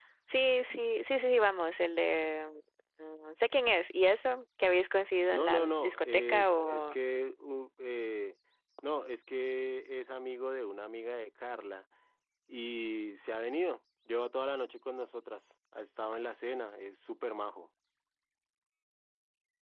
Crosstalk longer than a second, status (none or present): present